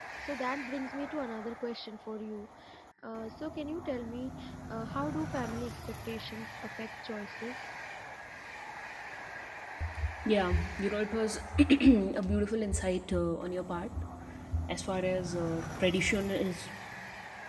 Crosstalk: none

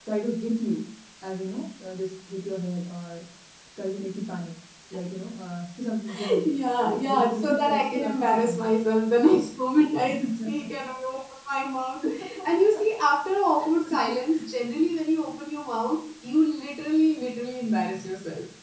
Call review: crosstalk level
present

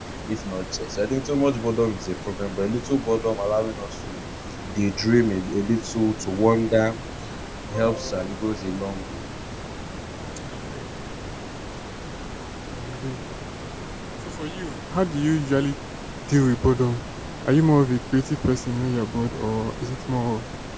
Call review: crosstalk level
none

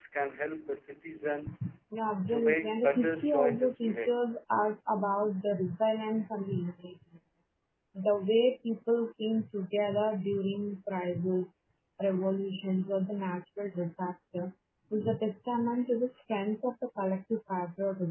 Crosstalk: present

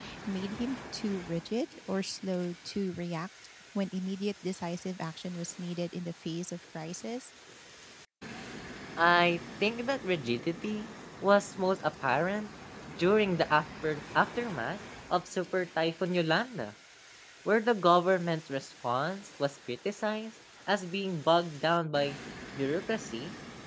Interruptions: none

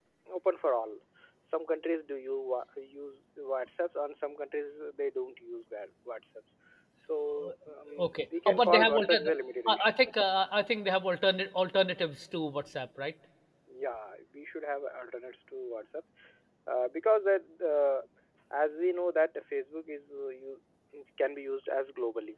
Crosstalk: present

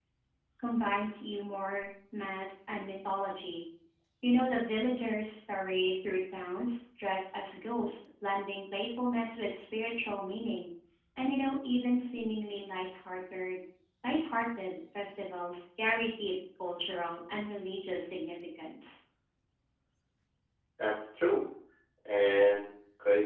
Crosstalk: none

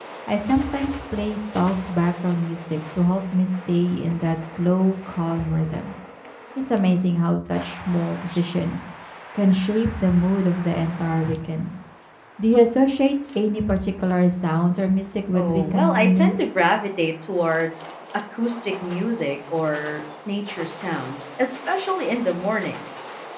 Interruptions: present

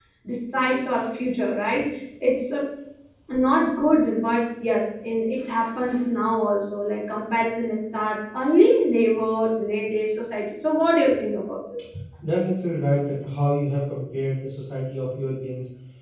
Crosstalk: none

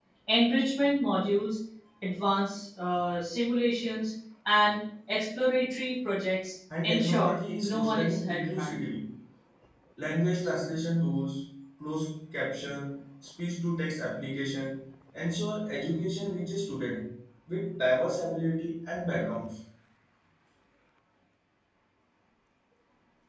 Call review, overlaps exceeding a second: present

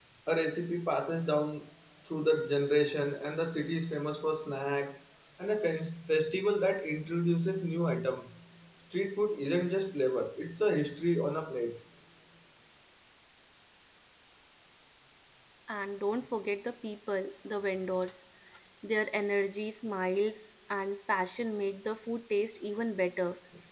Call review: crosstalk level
none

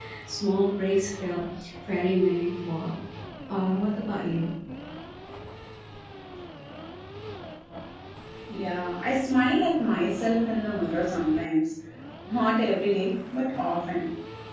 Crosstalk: none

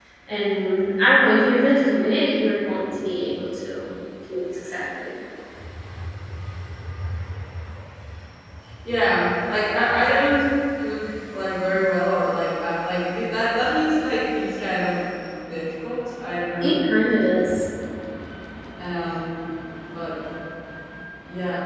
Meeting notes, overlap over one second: none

